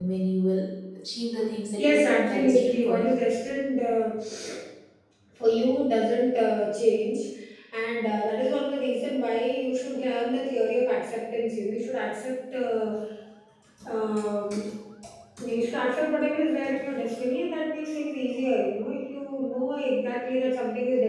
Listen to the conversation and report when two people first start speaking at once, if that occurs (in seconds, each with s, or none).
1.8 s